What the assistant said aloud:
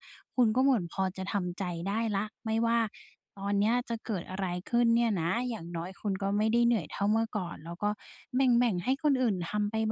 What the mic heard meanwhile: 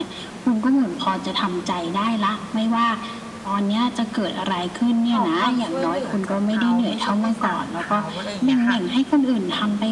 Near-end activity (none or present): present